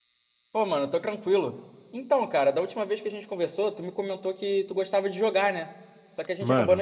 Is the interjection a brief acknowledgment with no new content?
No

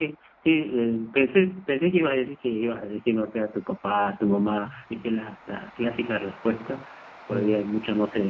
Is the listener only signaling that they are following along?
Yes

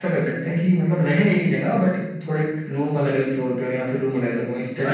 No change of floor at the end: No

